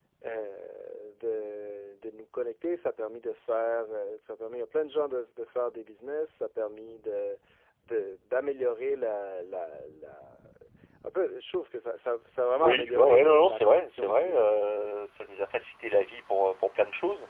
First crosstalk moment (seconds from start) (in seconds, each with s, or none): 12.6 s